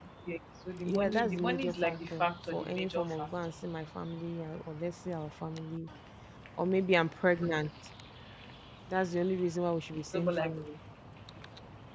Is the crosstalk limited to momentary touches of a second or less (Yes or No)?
No